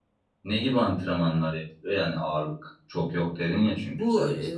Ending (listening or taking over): taking over